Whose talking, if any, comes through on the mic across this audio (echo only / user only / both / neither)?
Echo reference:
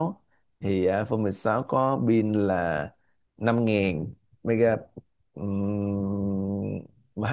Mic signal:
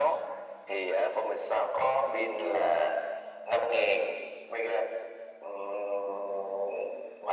echo only